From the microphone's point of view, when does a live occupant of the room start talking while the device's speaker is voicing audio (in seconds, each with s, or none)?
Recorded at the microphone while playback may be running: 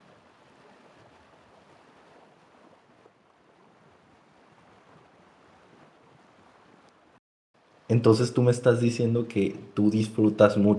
7.9 s